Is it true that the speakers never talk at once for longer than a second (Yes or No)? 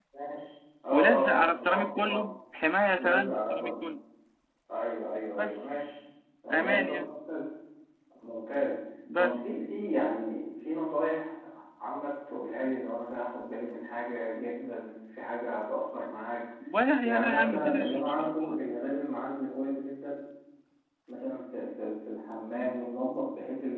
No